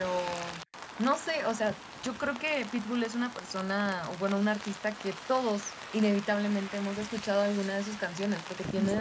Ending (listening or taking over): listening